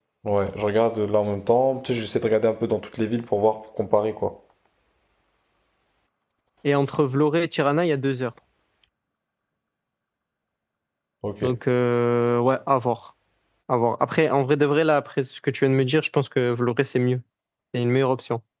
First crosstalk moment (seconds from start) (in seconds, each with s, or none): none